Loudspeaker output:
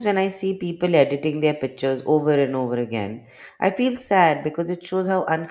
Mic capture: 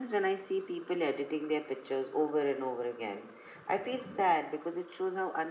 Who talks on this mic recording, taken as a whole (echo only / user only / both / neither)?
echo only